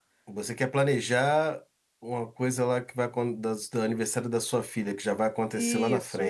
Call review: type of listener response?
taking over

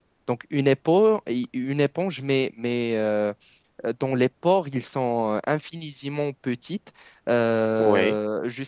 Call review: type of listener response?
listening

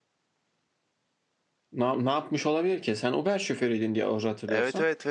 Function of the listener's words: taking over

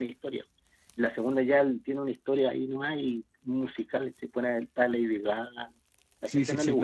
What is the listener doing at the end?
taking over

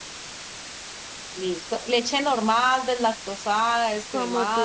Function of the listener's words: taking over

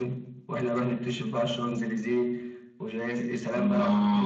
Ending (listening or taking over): taking over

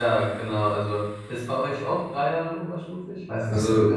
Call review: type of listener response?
taking over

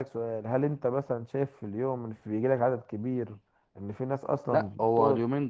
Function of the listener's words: taking over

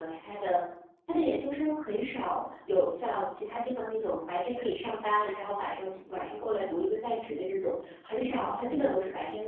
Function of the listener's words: listening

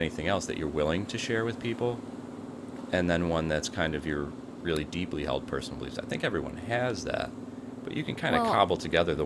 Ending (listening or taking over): listening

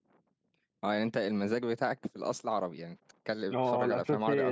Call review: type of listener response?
taking over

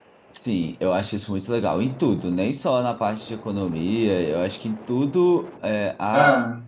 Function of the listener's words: listening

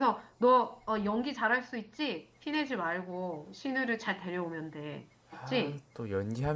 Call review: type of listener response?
taking over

